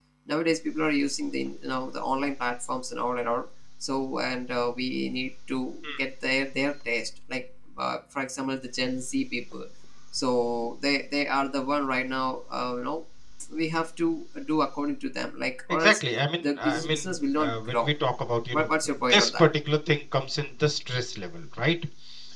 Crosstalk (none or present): present